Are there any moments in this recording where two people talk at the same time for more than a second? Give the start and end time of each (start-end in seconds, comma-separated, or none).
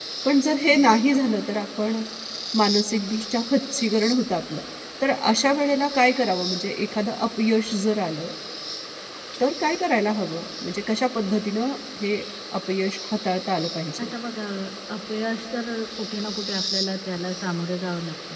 none